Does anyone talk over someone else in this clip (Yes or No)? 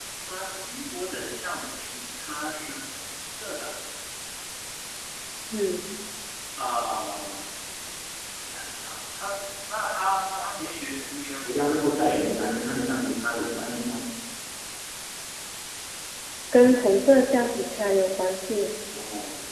No